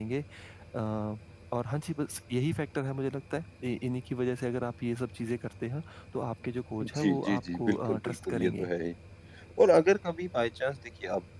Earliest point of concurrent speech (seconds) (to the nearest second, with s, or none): 7 s